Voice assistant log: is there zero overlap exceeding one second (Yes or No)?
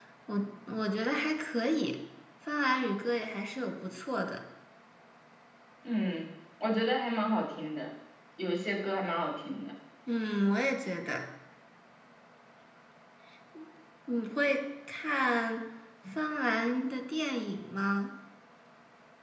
Yes